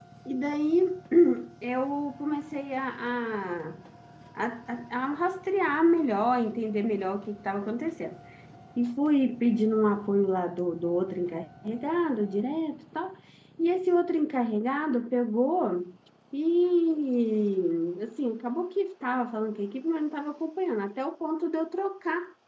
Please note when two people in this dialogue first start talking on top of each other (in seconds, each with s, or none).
none